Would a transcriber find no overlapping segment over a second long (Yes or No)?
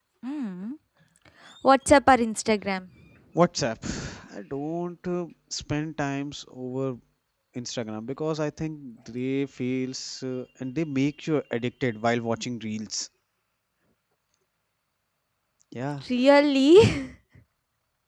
Yes